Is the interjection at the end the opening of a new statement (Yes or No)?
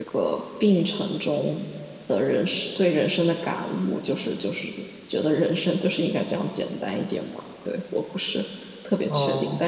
No